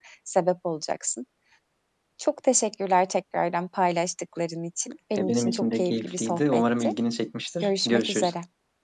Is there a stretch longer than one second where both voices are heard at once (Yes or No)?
Yes